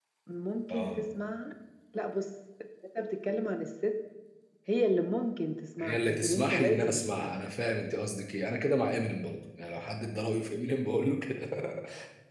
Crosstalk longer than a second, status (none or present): present